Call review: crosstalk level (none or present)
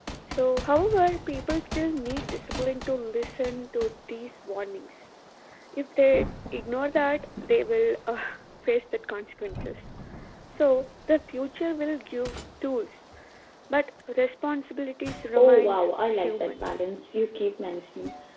present